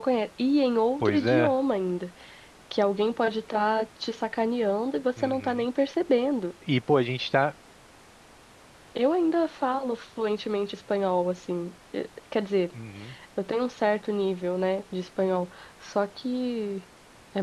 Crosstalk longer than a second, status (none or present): none